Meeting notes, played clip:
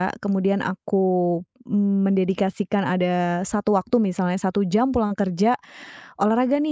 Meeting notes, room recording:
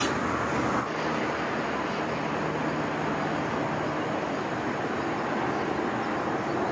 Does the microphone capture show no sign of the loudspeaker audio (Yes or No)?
Yes